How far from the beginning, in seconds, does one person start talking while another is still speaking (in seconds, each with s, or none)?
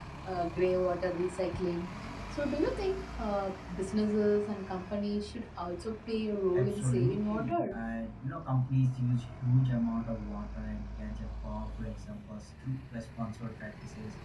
6.5 s